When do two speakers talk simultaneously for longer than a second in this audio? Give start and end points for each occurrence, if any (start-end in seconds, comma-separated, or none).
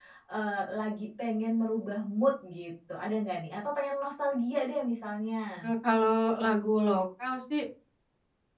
none